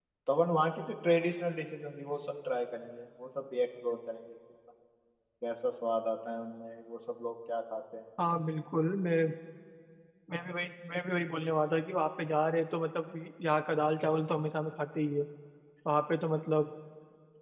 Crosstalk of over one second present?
No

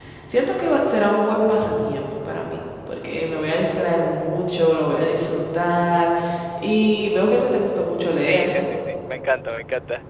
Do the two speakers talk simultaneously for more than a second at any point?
No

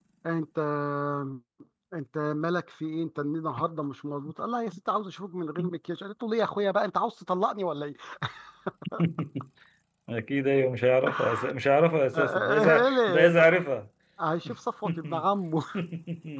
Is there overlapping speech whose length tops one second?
Yes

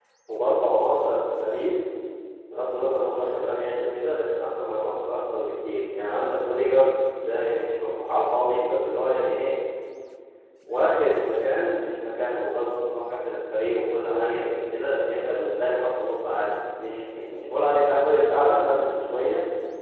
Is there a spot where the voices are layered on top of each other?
No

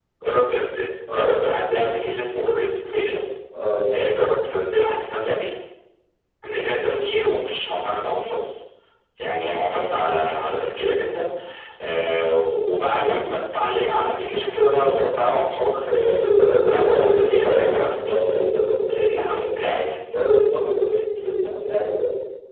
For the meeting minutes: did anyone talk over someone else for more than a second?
Yes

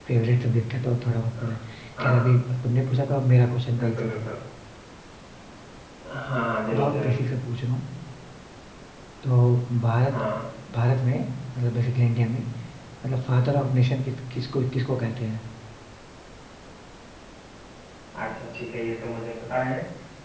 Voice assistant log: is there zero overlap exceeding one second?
Yes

